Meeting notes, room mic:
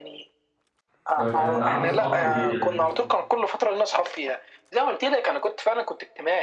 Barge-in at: 1 s

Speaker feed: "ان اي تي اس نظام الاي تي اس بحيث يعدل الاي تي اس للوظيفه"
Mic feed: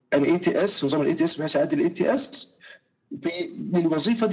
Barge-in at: none

